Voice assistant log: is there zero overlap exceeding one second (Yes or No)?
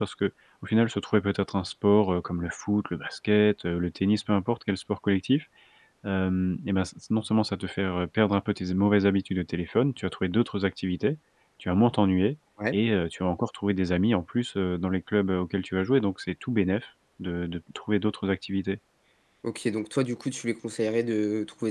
Yes